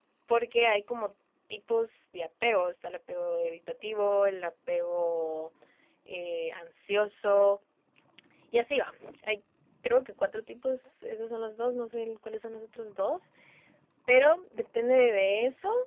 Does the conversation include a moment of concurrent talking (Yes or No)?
No